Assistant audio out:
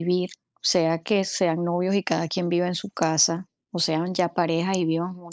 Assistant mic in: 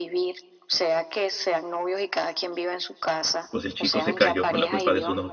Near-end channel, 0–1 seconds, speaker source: echo only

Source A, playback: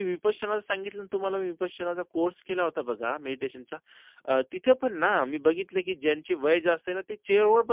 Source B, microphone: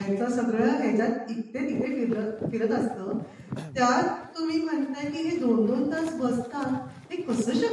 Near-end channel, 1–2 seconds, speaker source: user only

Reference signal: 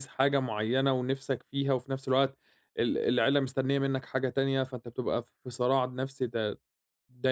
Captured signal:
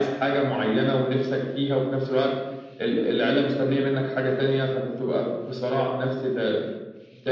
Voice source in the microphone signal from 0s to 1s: echo only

